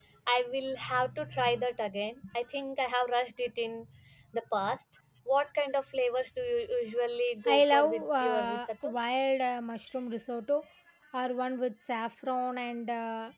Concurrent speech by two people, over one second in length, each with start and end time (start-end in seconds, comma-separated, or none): 7.5-8.9